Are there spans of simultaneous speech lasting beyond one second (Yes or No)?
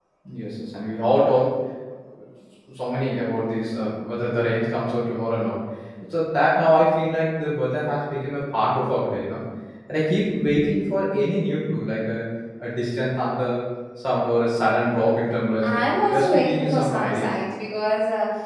Yes